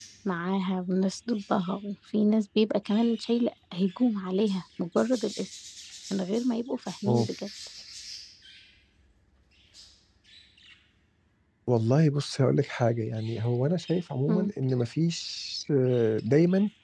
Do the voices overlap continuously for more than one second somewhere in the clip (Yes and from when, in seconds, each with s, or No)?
No